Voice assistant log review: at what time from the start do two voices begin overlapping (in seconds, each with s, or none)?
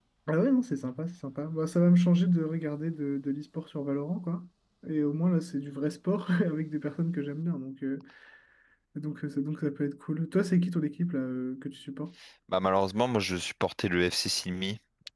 none